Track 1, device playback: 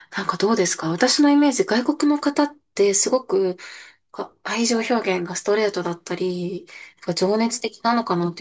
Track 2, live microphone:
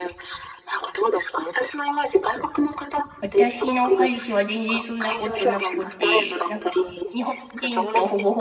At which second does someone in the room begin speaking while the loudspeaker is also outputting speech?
3.2 s

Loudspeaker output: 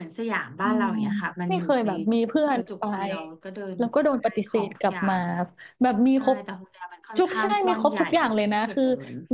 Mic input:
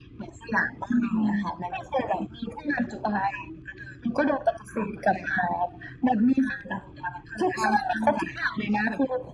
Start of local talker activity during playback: none

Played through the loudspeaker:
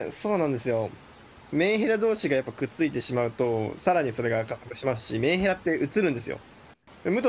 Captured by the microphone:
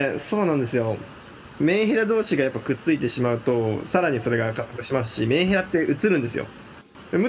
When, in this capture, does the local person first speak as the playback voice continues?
none

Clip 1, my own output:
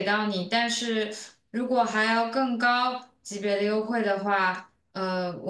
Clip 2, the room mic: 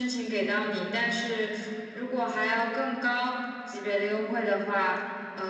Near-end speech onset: none

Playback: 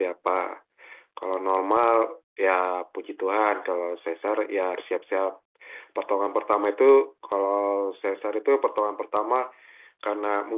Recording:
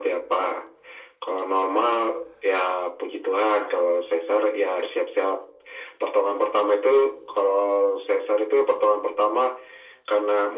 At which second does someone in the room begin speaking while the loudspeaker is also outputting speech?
none

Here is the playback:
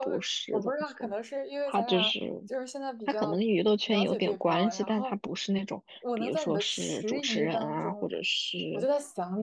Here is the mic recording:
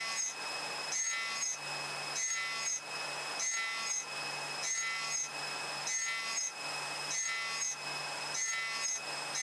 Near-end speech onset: none

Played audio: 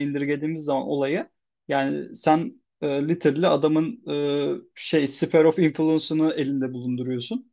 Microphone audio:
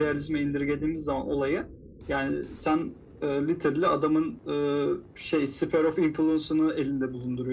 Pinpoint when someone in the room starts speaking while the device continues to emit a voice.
none

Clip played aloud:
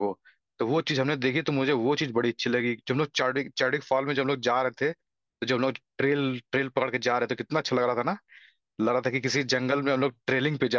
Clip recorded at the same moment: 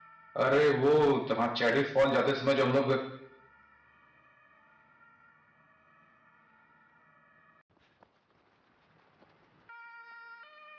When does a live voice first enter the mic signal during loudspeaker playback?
0.3 s

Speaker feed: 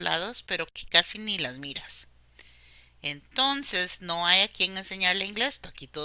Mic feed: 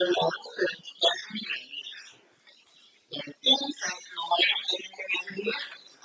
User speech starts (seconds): none

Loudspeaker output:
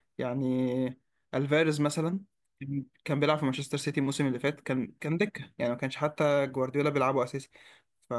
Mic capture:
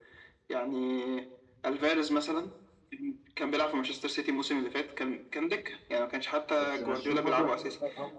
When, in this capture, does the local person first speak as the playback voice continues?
6.6 s

